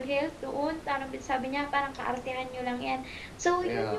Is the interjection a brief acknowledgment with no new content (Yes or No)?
Yes